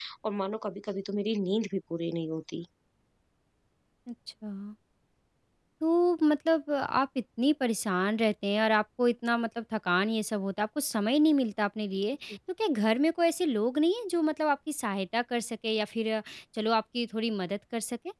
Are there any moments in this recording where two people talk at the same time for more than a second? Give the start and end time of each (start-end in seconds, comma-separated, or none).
none